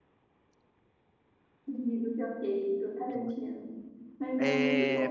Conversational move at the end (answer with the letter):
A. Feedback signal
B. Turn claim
B